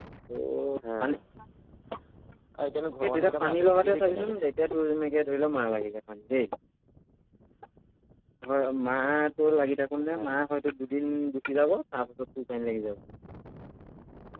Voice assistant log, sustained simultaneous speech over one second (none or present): present